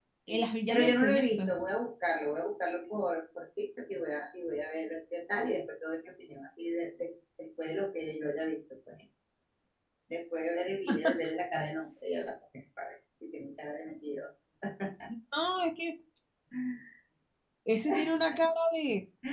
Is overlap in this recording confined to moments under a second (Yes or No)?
No